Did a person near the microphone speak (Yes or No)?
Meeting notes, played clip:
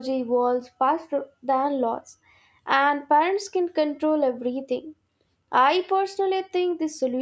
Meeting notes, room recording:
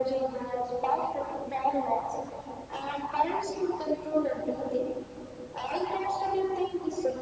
No